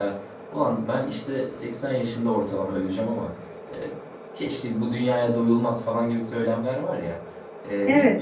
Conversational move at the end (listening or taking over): listening